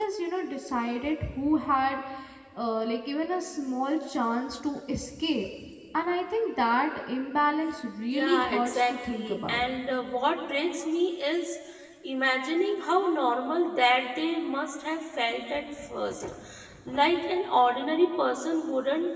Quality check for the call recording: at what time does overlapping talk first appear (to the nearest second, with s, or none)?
8 s